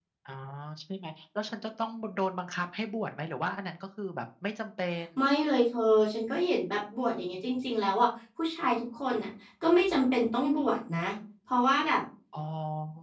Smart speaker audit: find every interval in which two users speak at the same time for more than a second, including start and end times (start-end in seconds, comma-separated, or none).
none